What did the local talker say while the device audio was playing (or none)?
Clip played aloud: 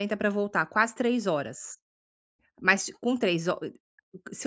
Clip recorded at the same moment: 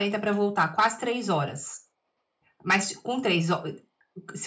none